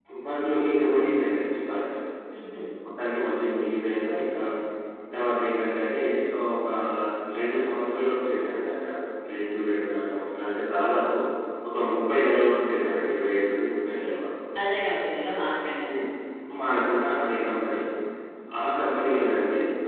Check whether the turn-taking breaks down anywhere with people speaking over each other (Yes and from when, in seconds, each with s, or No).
No